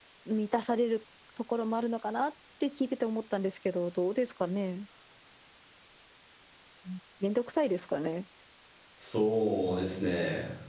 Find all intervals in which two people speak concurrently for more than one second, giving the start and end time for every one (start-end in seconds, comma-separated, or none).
none